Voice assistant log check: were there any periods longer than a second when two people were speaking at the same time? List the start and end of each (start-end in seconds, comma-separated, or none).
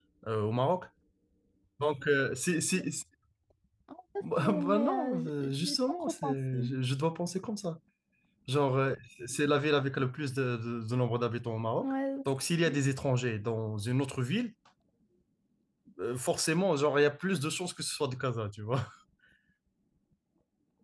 4.4-6.7